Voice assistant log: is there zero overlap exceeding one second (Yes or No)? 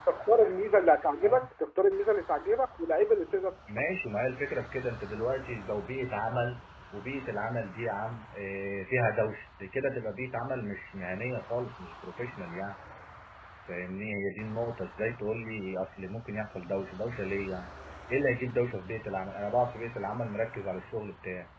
Yes